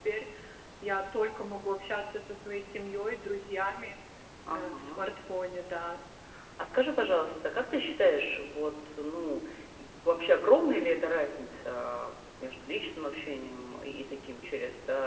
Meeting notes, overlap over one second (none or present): none